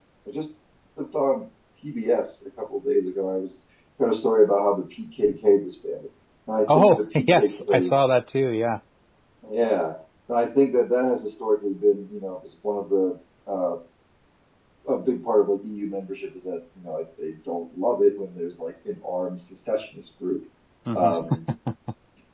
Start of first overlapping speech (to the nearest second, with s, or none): 7 s